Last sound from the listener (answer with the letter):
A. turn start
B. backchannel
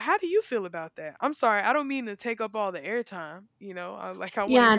A